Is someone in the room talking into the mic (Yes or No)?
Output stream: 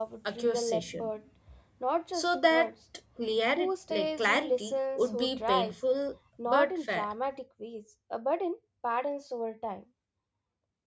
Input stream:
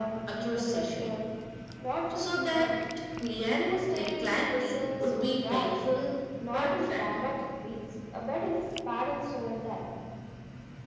No